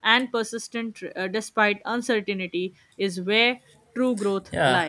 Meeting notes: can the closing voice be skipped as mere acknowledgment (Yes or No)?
No